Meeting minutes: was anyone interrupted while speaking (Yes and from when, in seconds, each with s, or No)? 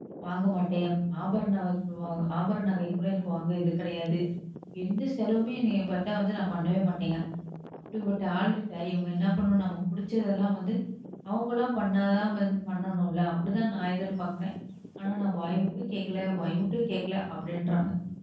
No